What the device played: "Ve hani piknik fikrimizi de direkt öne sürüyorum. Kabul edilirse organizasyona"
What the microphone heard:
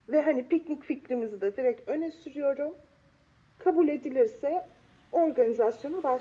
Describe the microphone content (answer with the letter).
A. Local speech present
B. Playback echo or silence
B